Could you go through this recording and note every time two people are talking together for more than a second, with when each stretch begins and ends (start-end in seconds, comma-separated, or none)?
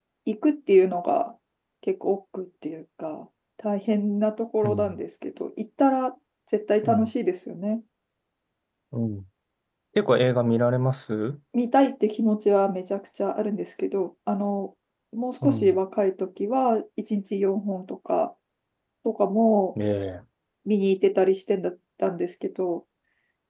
none